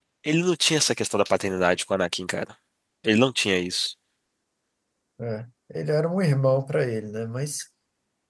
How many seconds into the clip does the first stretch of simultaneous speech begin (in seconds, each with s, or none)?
none